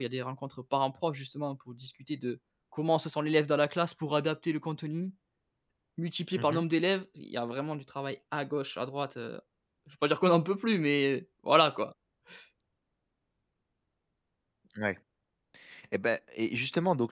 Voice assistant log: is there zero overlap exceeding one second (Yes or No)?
Yes